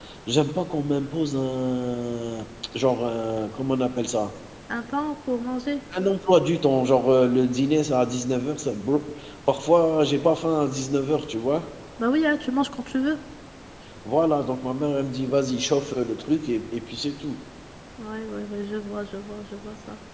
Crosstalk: none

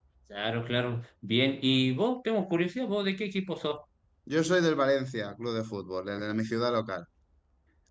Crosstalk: none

